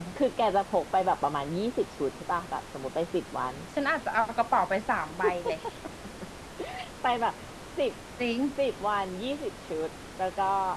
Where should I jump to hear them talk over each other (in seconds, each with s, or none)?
none